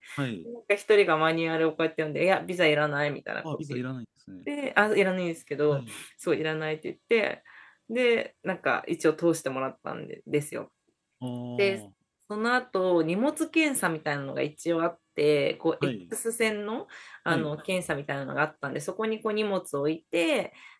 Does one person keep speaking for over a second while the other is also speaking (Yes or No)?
No